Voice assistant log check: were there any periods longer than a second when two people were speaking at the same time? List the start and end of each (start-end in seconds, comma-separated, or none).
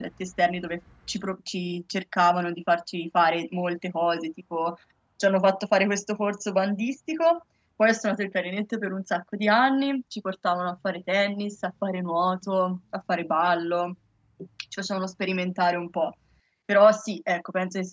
none